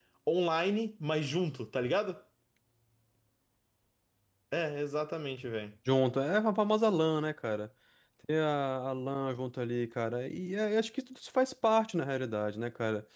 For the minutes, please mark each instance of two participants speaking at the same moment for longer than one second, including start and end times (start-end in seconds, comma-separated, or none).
none